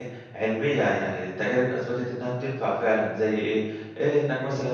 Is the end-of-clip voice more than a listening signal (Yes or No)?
No